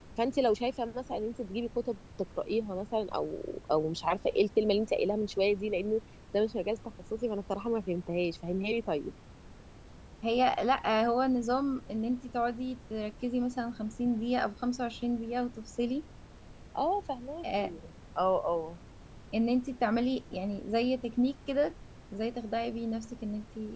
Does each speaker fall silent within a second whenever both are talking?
Yes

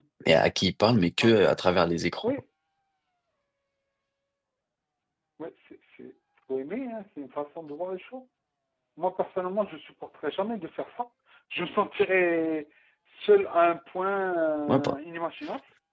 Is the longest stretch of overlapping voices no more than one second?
Yes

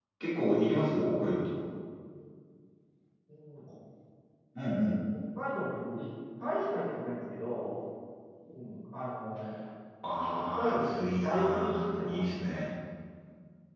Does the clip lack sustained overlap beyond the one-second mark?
No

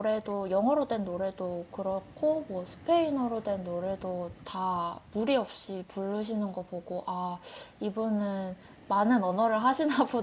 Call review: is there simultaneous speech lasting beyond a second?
No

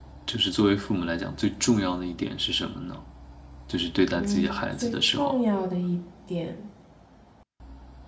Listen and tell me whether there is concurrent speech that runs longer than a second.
Yes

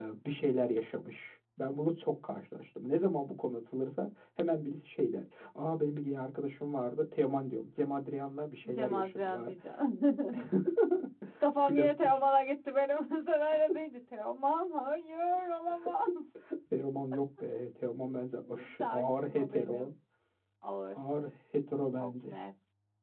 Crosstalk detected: Yes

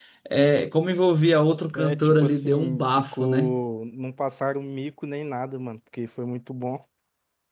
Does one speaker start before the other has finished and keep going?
Yes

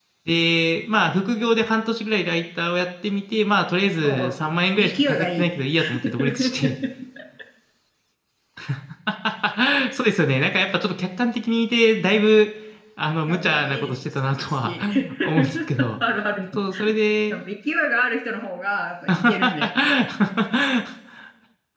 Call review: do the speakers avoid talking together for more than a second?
No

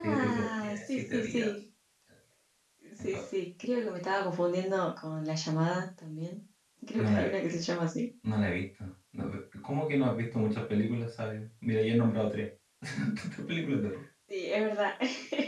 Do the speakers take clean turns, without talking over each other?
No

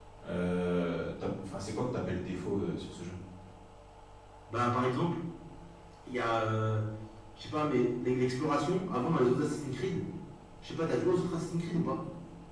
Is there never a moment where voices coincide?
Yes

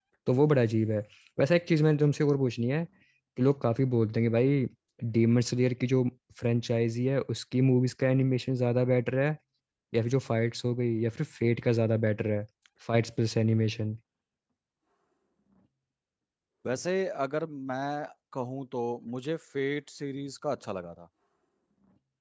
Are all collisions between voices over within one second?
Yes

